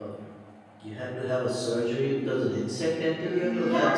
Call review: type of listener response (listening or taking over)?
taking over